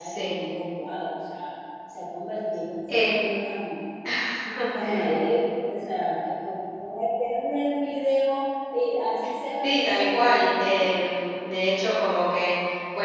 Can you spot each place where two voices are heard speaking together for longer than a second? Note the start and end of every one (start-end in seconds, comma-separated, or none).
9.6-10.9